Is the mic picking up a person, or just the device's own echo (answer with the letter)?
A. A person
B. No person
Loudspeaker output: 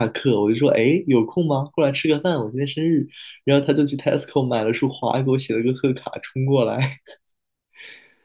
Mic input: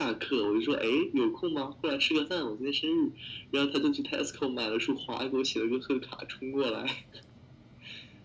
B